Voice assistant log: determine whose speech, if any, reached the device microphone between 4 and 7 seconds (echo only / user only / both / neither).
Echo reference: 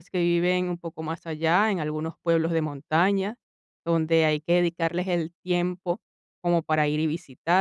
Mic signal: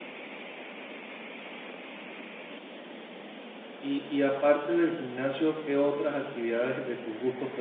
user only